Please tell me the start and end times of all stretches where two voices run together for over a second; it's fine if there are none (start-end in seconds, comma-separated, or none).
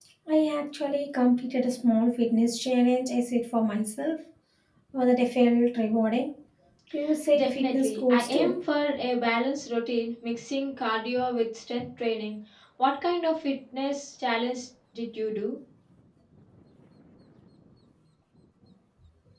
7.3-8.5